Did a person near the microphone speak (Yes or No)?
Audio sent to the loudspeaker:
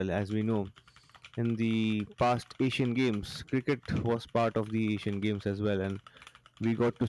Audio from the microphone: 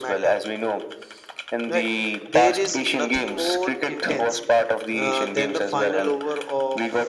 Yes